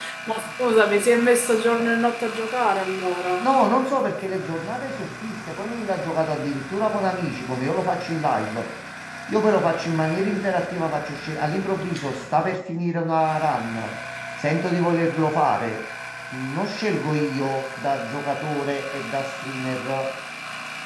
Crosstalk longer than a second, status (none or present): none